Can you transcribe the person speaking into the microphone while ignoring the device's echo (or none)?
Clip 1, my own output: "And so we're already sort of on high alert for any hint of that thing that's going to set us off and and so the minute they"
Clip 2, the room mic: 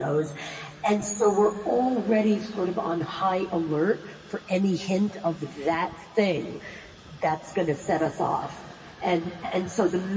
none